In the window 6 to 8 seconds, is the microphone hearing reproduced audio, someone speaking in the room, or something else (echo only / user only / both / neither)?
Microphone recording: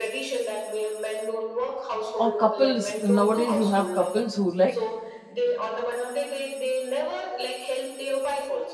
echo only